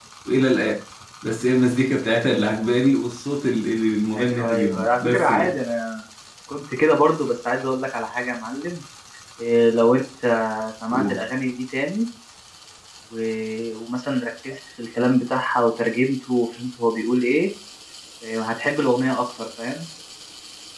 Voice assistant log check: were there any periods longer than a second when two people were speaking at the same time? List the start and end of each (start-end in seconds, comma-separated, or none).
4.1-5.6